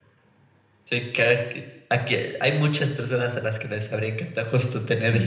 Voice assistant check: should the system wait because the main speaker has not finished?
No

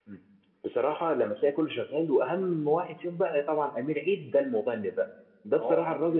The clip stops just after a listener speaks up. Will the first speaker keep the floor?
Yes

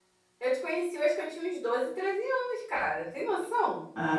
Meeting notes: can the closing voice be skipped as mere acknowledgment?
No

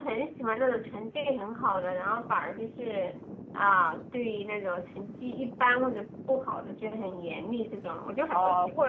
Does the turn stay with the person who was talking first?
No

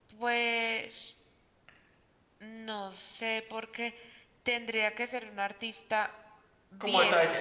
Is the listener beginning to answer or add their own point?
Yes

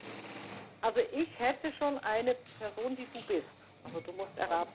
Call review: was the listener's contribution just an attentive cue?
No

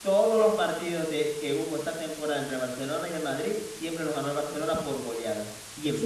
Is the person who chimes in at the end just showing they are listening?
No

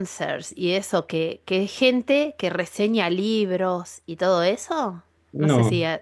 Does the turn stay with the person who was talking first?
Yes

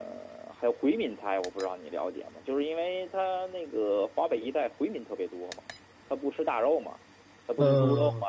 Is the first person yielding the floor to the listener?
No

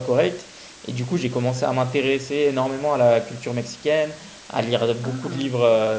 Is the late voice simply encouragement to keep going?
Yes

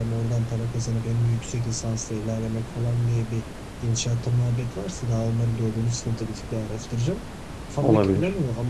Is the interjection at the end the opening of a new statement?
No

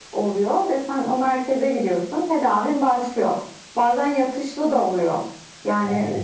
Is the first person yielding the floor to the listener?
No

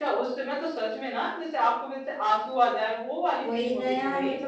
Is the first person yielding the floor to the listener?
Yes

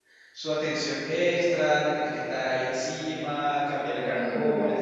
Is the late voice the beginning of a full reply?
Yes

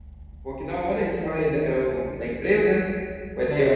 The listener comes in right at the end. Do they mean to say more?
Yes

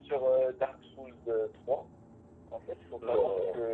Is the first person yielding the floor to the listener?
No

